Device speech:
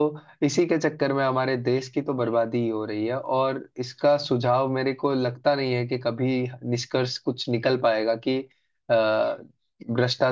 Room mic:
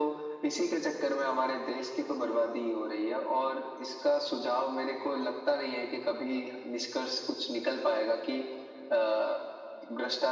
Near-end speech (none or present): none